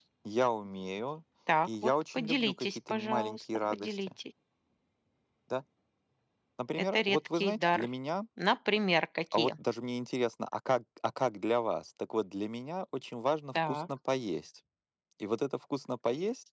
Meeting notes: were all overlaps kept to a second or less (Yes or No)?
No